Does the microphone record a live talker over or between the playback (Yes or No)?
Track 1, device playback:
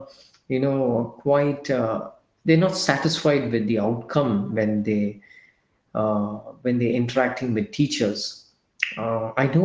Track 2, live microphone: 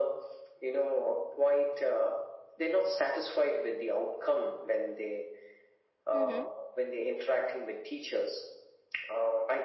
Yes